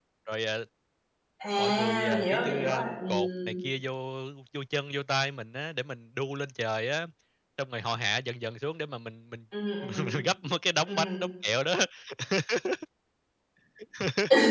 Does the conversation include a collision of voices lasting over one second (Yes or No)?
Yes